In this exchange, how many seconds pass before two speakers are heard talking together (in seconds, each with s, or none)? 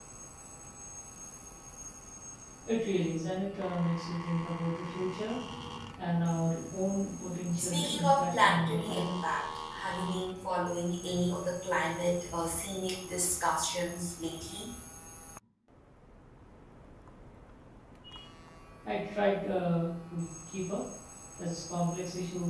7.5 s